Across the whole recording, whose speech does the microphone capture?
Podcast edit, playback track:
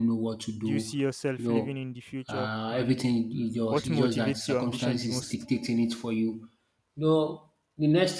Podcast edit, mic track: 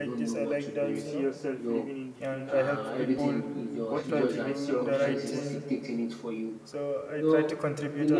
both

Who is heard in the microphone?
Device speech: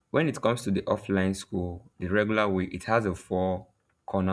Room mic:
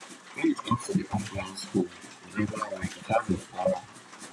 echo only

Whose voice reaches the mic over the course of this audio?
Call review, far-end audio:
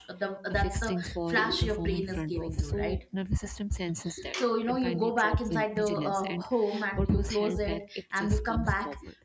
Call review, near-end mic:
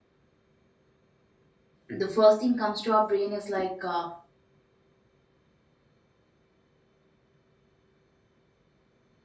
user only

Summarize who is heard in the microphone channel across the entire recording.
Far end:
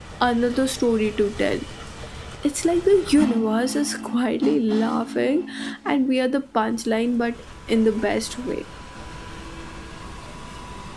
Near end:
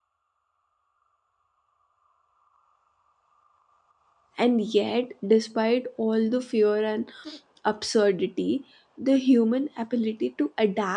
user only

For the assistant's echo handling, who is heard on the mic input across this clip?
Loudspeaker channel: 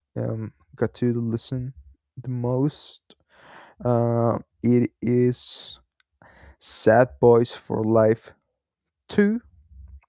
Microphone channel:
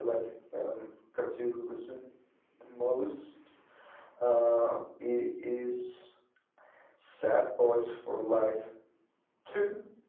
echo only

